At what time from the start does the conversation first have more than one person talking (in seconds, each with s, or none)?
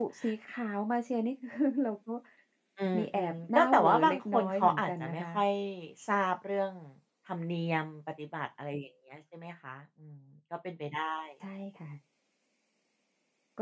3.0 s